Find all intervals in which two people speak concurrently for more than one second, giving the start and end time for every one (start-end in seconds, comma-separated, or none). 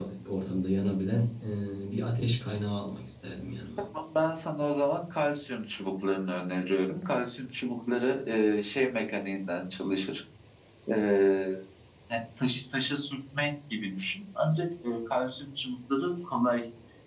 none